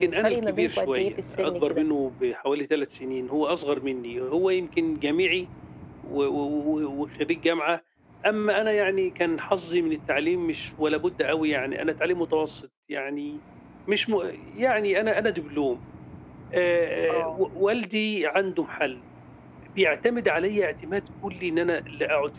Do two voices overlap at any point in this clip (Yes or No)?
Yes